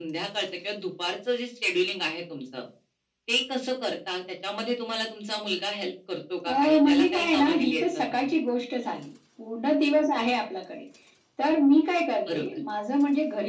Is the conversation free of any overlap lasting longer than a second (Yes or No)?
No